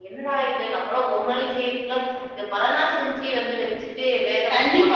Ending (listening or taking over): taking over